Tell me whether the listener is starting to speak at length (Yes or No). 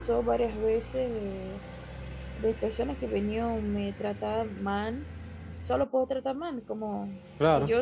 No